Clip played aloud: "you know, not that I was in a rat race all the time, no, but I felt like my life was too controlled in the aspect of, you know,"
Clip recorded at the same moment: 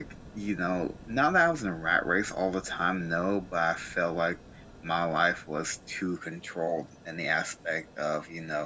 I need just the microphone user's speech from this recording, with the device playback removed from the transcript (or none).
none